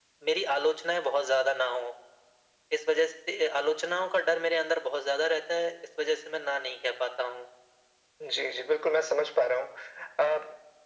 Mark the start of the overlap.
none

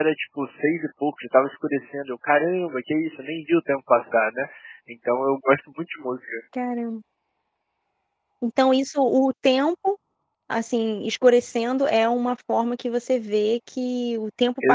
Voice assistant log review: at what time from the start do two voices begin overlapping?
none

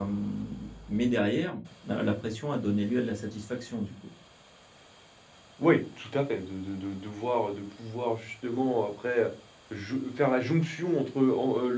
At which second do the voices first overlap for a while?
none

